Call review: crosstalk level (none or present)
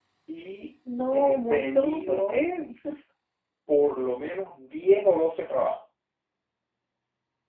present